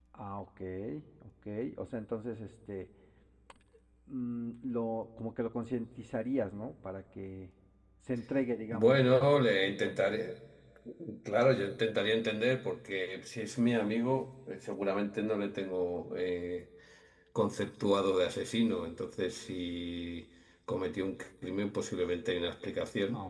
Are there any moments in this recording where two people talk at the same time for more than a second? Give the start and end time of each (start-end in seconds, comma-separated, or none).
none